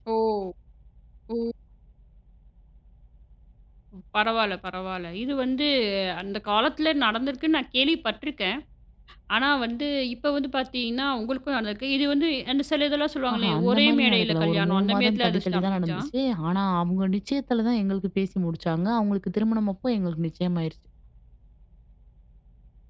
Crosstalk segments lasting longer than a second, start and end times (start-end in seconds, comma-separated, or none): 13.3-16.0